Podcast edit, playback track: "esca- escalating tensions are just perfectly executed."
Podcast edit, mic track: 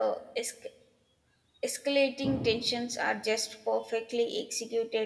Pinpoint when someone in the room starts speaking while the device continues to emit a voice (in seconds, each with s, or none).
none